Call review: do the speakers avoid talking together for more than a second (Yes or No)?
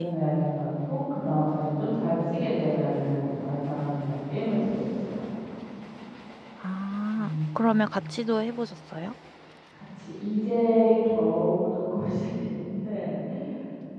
Yes